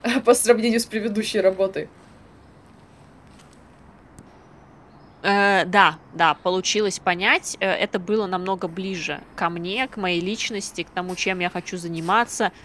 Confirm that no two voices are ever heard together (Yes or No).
Yes